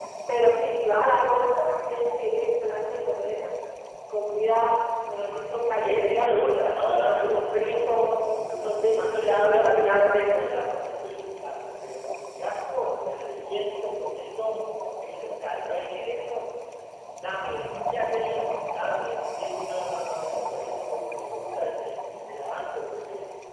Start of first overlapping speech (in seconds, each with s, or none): 5.8 s